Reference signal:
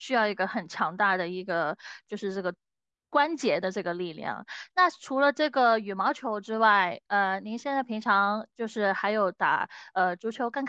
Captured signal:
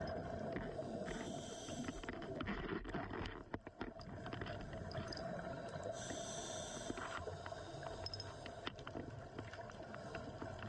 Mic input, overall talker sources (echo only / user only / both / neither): neither